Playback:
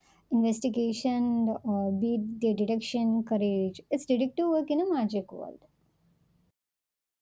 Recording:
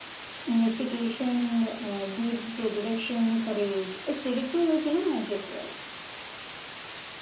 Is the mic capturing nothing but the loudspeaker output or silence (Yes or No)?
Yes